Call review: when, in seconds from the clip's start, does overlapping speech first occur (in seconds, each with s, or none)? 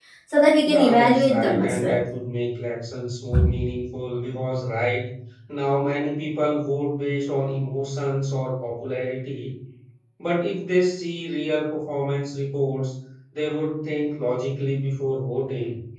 0.6 s